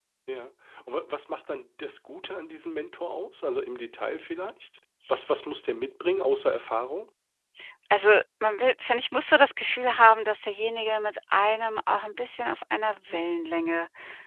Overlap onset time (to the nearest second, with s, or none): none